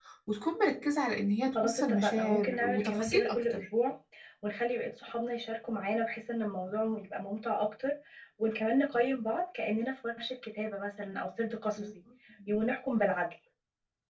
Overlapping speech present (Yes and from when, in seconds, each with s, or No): Yes, from 1.6 s